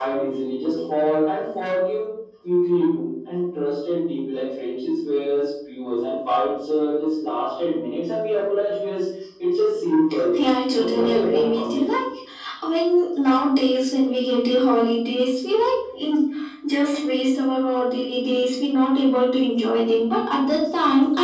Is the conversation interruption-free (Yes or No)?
No